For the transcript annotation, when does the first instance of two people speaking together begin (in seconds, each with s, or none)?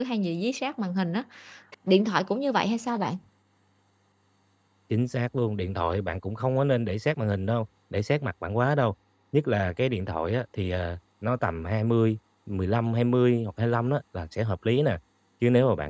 none